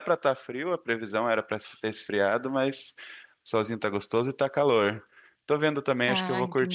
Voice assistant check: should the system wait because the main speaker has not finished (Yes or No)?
Yes